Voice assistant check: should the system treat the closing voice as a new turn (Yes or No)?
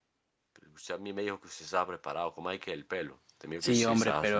Yes